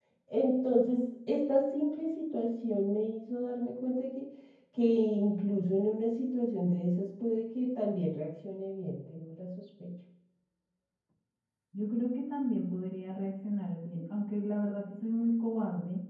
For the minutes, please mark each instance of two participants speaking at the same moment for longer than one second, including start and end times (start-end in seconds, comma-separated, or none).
none